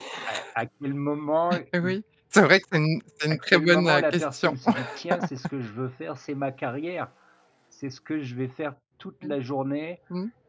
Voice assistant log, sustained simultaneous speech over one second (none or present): present